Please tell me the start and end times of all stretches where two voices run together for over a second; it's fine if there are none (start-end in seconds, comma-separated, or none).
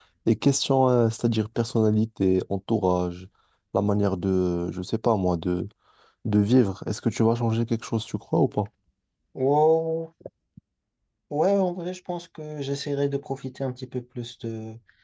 none